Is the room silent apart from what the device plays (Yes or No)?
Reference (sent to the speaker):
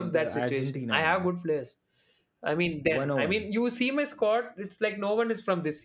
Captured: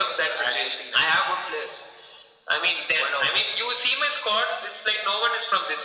Yes